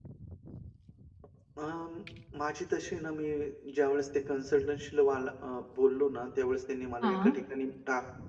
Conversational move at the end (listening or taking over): listening